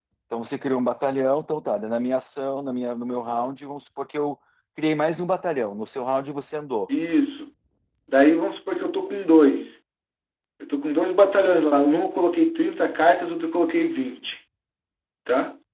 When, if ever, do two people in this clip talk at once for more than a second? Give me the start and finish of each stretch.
none

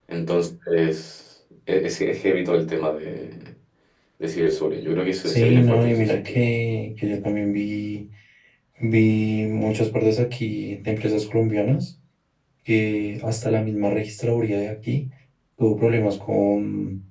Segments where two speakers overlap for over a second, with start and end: 5.2-6.4

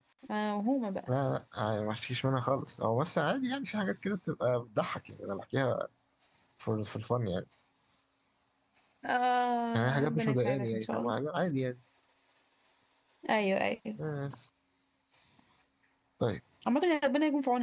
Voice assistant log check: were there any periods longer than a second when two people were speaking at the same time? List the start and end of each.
9.7-11.1

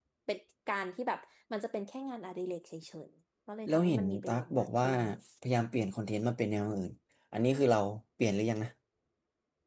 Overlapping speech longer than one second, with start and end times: 3.7-4.9

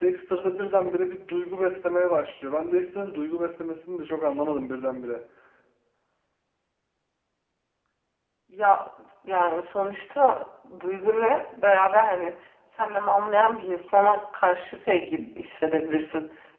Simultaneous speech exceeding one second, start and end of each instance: none

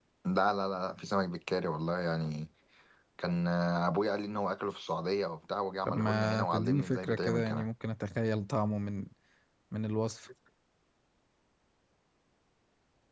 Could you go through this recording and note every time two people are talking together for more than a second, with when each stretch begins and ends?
5.8-7.7

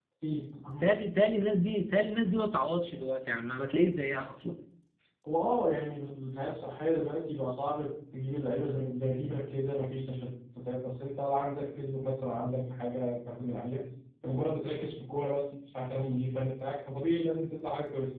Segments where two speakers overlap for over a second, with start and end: none

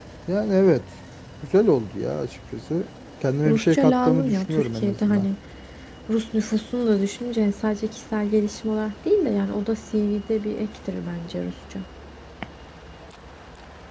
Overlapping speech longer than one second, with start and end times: 3.4-5.3

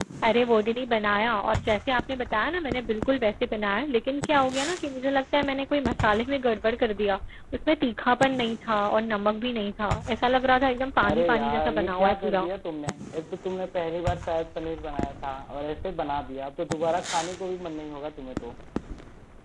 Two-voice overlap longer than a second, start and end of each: 11.0-12.5

